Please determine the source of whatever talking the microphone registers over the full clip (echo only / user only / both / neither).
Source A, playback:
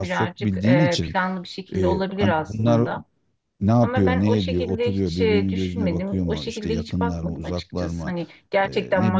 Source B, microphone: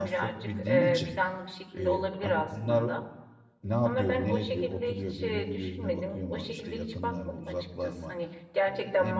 echo only